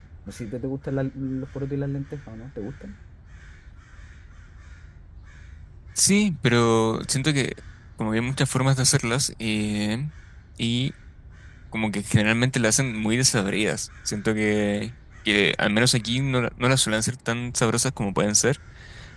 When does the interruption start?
none

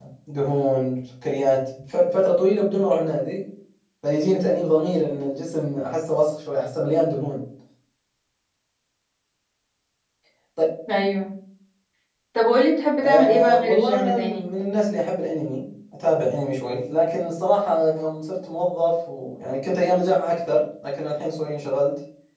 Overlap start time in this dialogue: 13.0 s

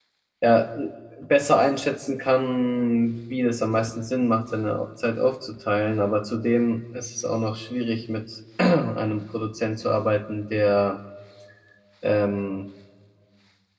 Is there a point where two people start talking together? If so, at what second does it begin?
none

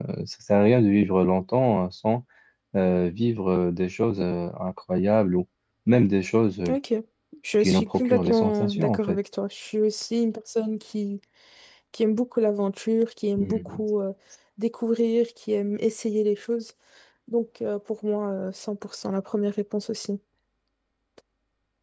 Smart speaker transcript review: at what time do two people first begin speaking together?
7.6 s

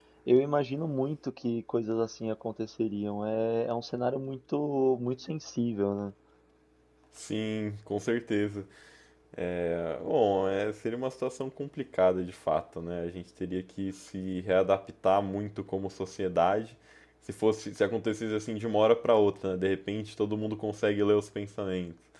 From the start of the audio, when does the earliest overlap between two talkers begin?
none

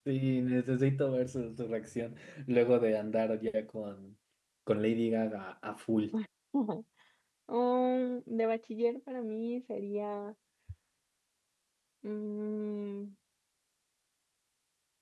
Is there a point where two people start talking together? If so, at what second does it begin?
none

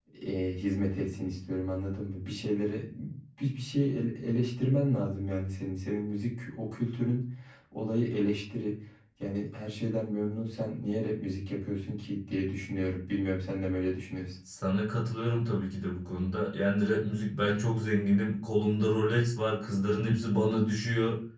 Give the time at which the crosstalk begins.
none

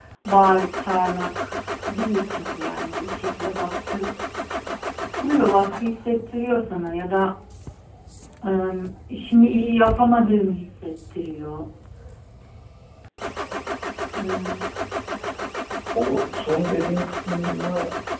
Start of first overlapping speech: none

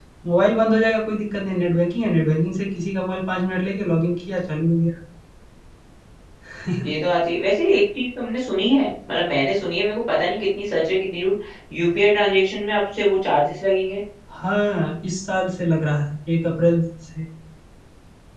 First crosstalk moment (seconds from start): none

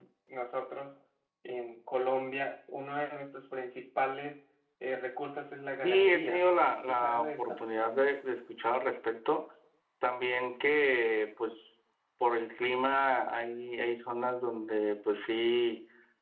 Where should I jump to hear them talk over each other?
5.8 s

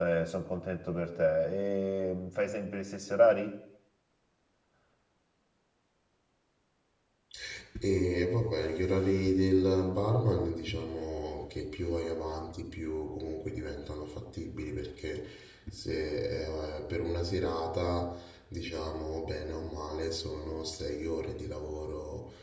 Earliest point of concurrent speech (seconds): none

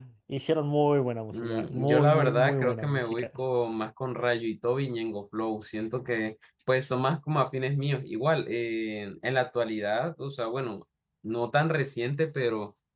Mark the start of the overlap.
1.3 s

